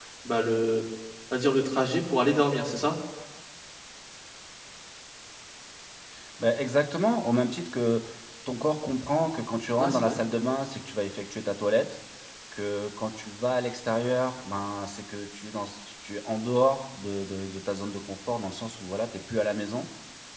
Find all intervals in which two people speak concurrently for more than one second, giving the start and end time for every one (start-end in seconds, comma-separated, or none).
none